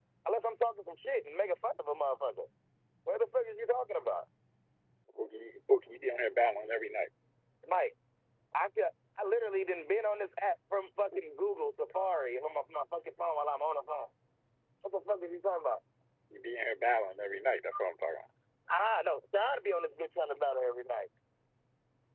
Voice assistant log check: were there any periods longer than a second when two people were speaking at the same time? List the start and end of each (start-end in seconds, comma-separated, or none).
none